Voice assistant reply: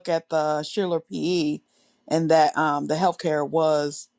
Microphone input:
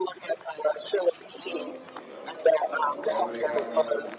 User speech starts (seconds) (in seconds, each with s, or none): 1.3 s